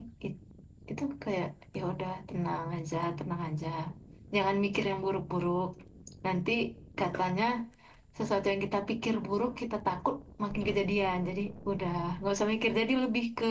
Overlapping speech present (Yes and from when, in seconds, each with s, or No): No